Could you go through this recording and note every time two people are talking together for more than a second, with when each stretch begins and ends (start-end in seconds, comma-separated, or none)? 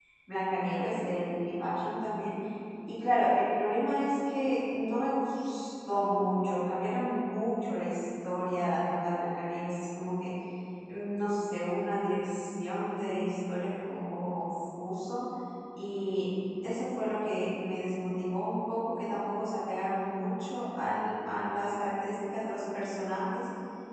none